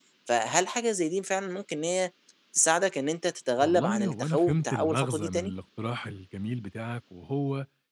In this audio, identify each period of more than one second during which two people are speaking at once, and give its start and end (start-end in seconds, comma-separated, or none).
3.6-5.5